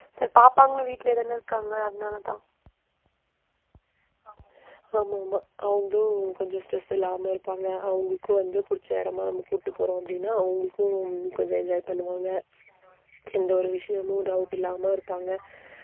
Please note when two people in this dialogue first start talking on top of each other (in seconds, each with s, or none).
none